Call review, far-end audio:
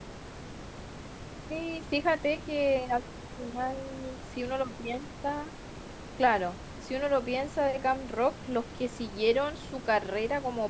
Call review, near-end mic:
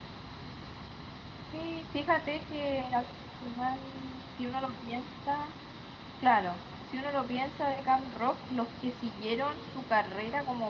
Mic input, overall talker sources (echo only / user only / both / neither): echo only